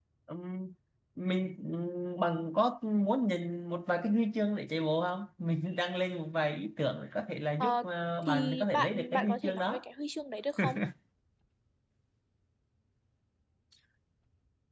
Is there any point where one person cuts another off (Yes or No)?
Yes